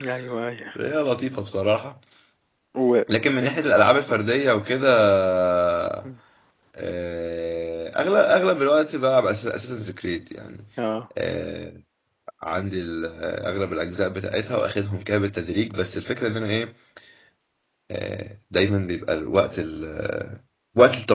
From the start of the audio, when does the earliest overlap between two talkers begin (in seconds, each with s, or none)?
none